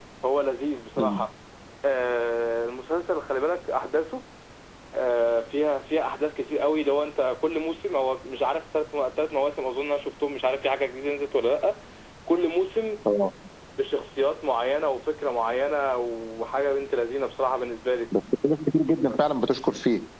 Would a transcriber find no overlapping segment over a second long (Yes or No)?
Yes